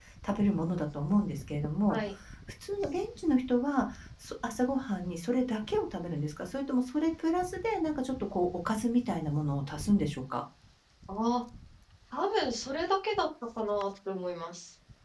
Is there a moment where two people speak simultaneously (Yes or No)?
No